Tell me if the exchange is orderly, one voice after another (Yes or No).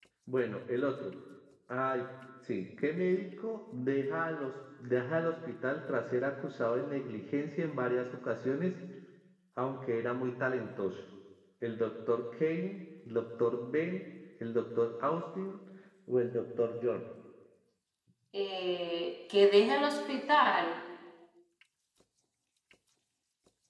Yes